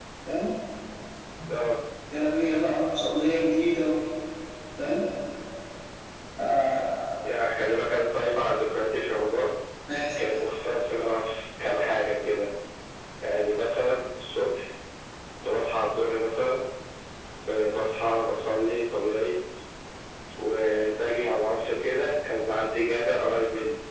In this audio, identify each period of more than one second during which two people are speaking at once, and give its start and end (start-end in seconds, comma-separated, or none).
none